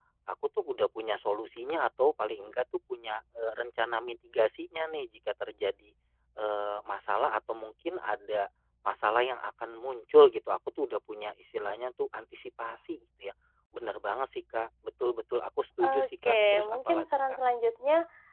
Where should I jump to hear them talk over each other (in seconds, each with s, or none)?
15.8 s